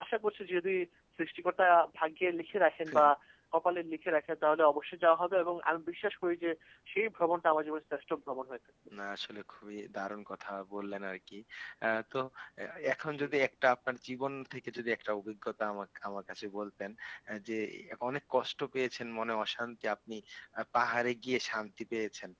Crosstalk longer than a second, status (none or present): none